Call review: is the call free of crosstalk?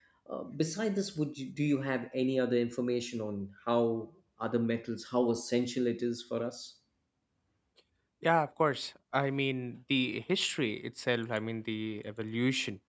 Yes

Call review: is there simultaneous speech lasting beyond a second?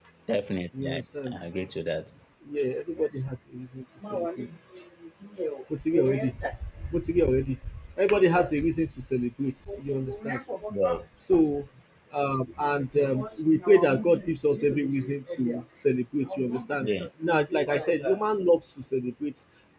No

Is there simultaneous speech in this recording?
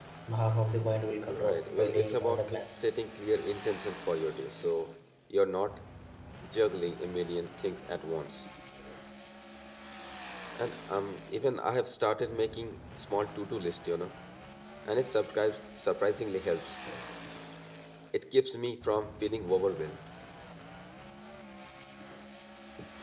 Yes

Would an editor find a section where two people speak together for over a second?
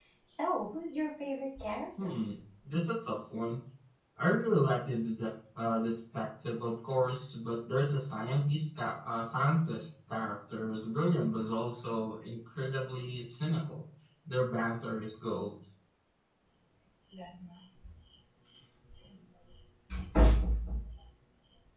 No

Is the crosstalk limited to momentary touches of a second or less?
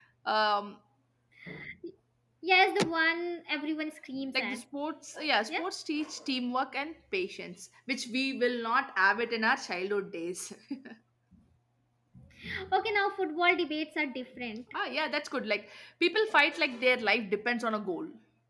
Yes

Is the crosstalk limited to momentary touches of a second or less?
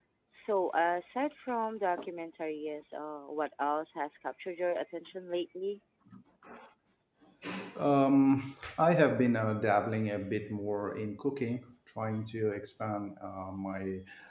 Yes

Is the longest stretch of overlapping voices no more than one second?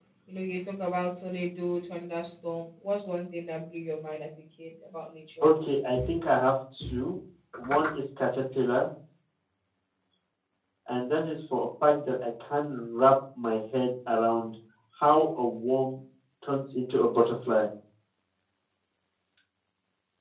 Yes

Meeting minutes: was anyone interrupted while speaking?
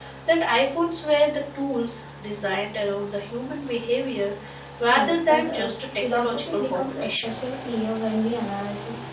Yes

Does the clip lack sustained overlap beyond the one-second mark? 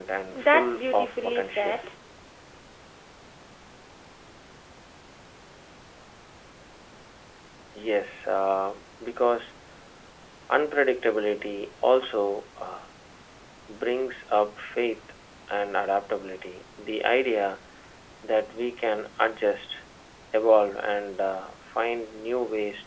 No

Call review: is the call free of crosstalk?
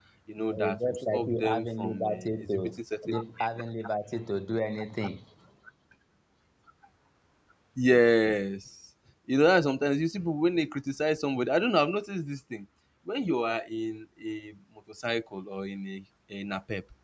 No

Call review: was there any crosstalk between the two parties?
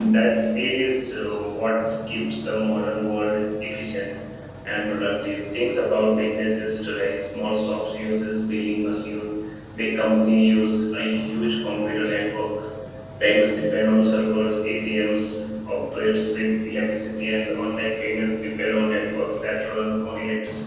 No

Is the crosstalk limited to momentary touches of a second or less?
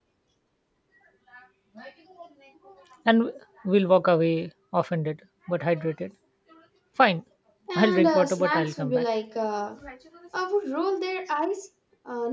No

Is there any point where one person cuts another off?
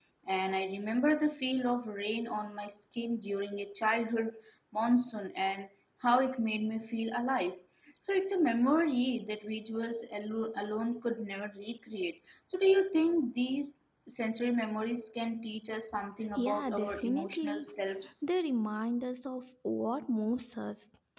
Yes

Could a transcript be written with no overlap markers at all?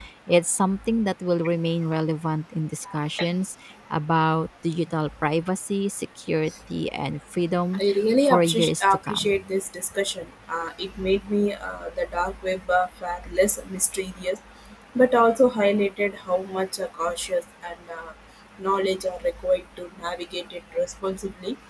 No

